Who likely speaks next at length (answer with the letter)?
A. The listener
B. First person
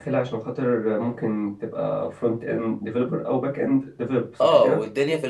A